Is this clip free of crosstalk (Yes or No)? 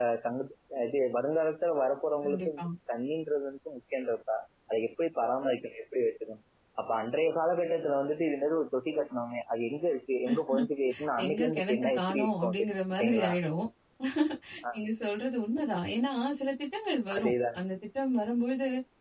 No